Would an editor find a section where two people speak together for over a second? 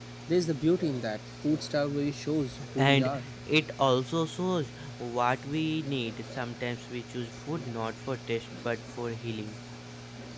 No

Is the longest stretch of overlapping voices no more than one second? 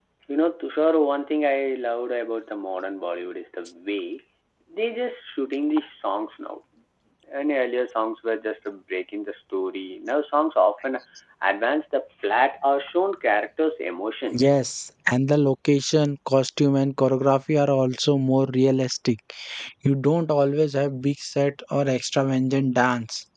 Yes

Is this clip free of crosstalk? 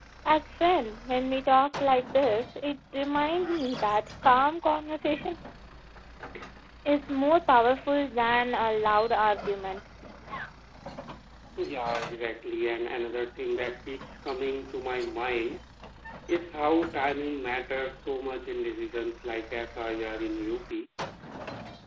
Yes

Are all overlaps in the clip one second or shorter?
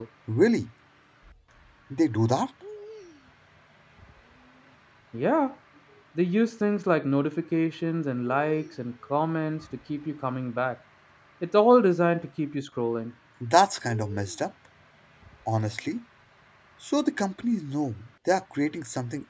Yes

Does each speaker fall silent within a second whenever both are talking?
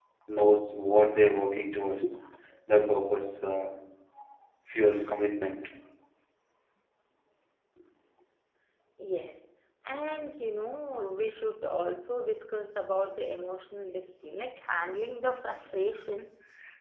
Yes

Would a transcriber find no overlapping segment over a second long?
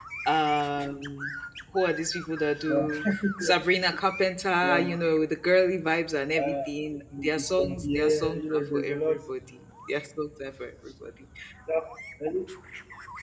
No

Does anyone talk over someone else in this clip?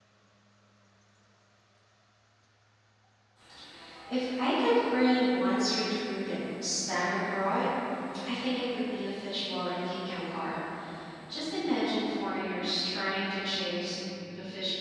No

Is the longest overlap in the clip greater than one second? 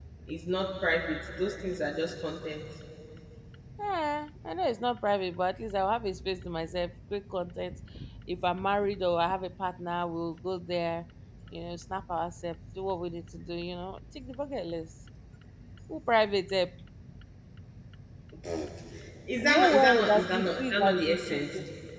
Yes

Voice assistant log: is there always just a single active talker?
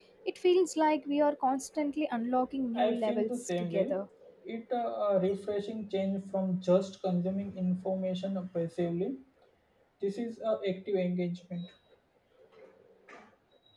No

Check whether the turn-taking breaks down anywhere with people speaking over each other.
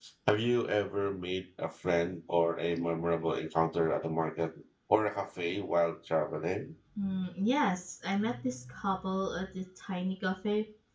No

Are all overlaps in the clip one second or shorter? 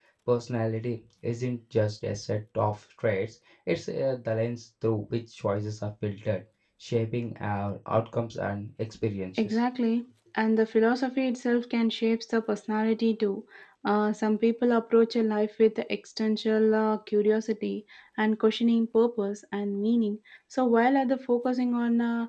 Yes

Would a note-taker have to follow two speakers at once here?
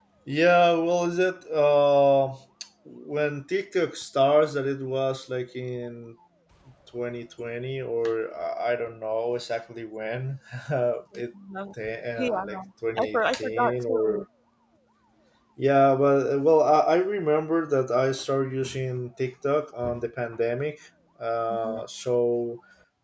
Yes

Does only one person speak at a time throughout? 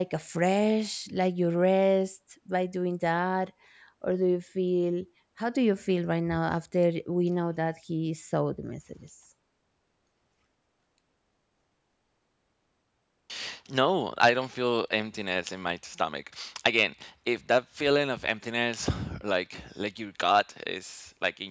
Yes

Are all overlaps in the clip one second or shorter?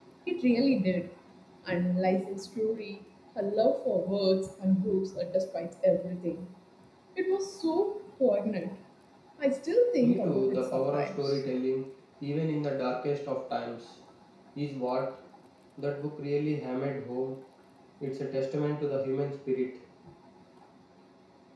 No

